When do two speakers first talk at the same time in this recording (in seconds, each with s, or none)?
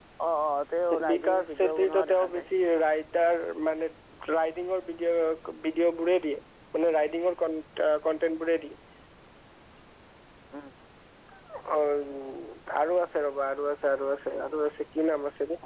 1.1 s